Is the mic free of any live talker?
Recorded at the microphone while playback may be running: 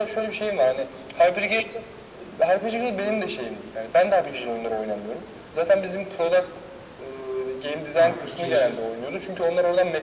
No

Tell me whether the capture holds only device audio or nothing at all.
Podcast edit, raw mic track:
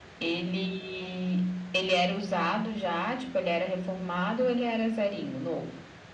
Yes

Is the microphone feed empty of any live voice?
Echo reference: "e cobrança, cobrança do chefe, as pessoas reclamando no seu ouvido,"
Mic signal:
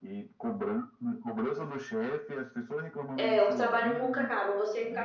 No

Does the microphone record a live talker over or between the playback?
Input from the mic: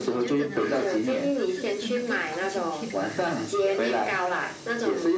Yes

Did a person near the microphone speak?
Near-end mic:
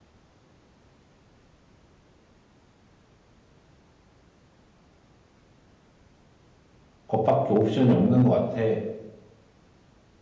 Yes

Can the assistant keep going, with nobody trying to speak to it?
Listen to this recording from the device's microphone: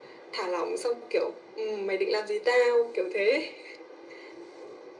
Yes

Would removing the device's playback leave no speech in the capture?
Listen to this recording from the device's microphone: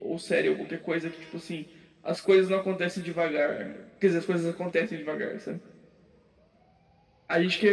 Yes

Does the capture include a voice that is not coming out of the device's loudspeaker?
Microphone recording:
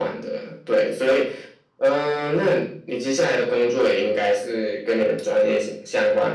No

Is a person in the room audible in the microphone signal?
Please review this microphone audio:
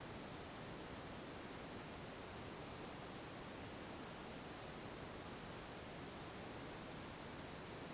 No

